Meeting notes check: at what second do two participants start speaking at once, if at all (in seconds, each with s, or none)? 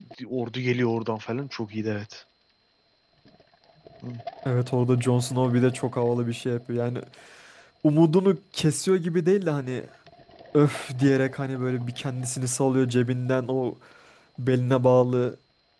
none